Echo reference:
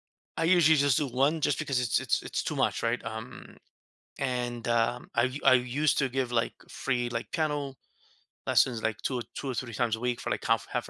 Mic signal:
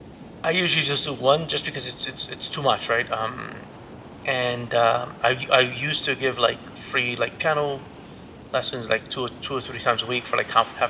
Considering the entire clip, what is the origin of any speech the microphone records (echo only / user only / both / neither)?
echo only